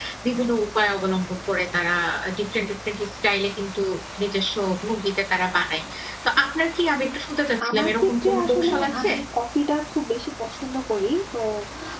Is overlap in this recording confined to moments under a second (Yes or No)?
No